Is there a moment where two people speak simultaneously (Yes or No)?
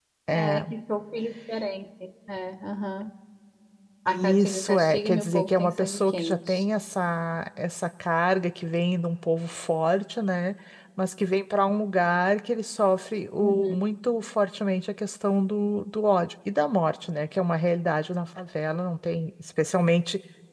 Yes